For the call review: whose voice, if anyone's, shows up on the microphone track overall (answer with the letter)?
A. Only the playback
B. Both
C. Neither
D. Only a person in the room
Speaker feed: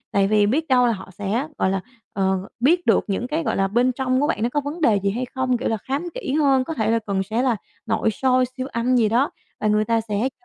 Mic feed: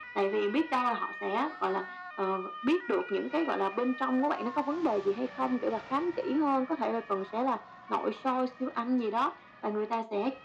A